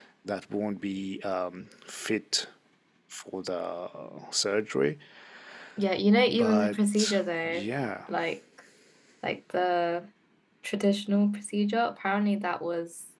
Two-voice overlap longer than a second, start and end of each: 6.4-7.6

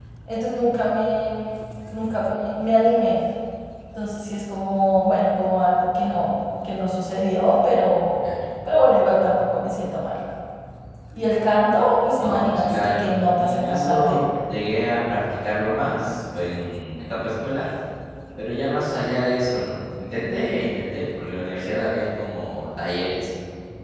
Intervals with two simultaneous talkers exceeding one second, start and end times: 12.2-14.2

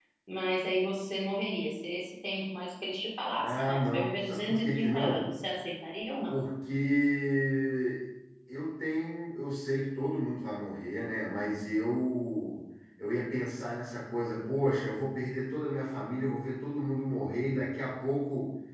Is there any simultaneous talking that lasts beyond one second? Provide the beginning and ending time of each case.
3.4-5.3

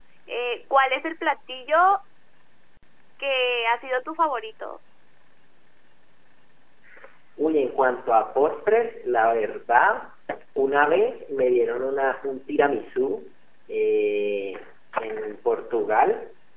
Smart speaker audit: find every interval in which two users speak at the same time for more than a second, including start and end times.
none

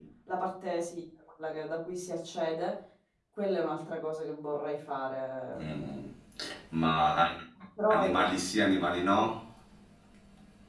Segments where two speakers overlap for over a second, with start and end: none

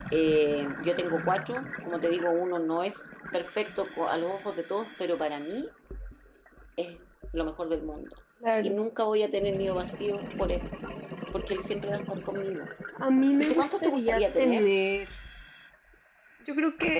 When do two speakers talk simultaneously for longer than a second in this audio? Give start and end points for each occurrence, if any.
13.4-14.7

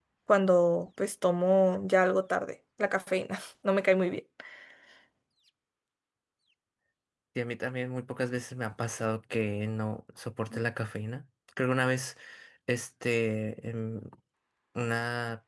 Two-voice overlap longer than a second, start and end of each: none

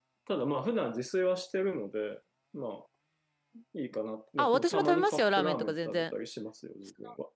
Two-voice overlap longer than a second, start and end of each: 4.4-6.0

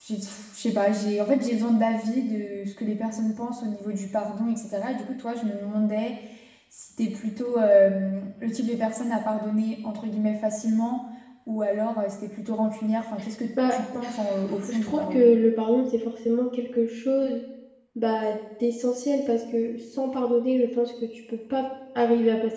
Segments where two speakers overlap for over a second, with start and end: 13.7-15.3

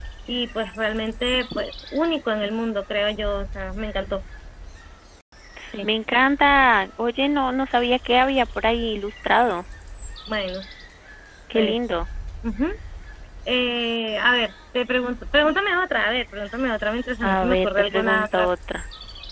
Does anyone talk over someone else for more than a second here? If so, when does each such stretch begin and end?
17.2-18.5

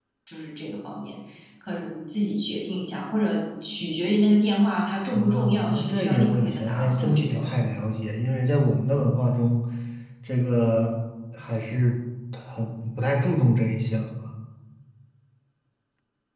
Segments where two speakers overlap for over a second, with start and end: 5.1-7.4

